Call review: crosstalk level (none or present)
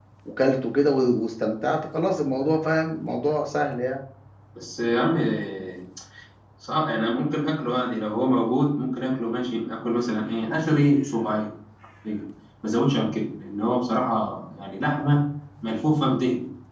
none